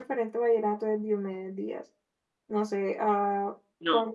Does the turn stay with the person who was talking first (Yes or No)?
Yes